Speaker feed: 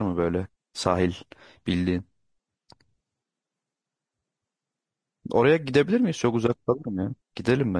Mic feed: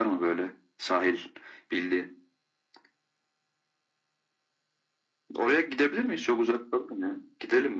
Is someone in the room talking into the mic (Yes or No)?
No